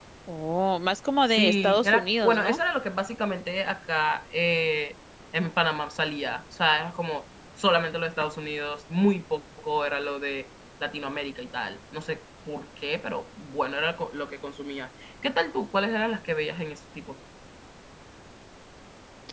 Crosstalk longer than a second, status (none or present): present